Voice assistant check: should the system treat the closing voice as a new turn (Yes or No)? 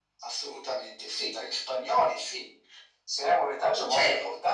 No